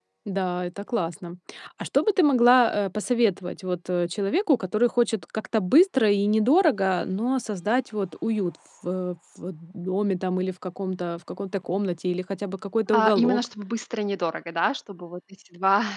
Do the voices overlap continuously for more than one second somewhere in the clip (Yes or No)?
No